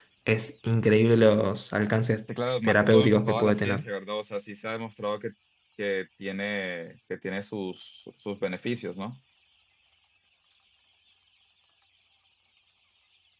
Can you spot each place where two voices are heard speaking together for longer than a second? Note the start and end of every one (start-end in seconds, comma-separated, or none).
2.6-3.8